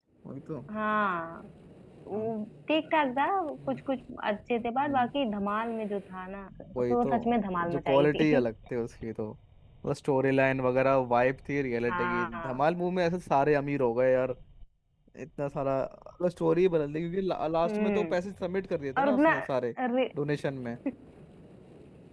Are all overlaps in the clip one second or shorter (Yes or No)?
No